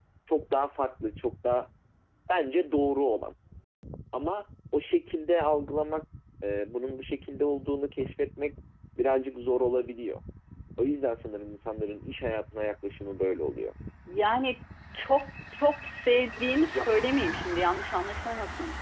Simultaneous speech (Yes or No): No